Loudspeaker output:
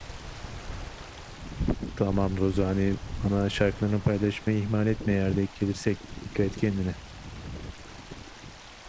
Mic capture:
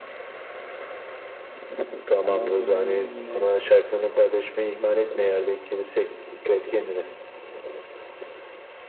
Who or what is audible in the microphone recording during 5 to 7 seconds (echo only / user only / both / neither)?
echo only